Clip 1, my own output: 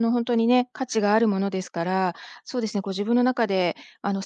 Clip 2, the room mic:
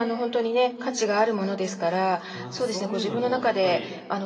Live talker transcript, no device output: ま、なんかそういうのもやっぱり

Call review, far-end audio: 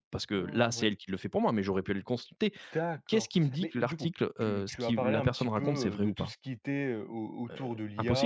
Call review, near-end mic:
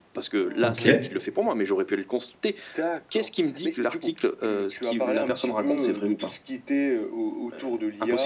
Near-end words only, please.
OK,

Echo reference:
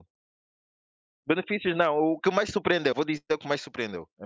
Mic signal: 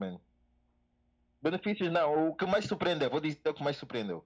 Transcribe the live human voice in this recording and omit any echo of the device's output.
none

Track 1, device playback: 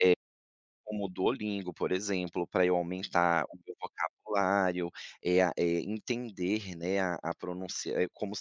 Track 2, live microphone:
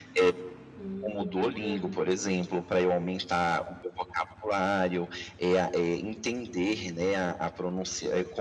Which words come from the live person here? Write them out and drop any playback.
Hum, bacana.

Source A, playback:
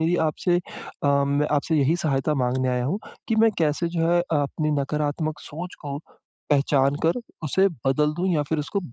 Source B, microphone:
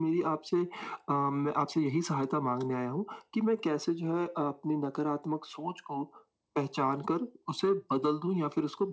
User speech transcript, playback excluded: none

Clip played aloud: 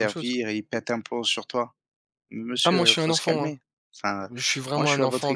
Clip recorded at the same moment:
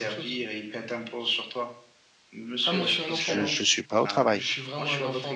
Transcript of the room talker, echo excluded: Je ne suis pas au travail.

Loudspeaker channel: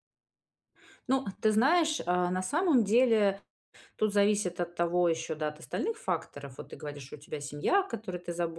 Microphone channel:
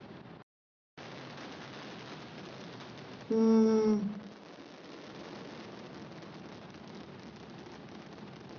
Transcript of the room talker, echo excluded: М,

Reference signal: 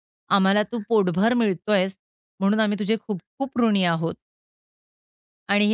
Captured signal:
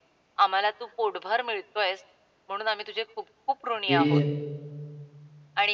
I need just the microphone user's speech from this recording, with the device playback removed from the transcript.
म्हणजे

